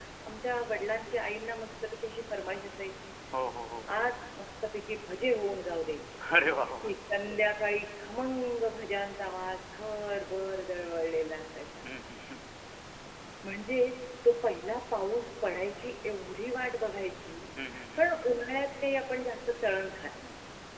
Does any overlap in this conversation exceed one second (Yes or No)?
No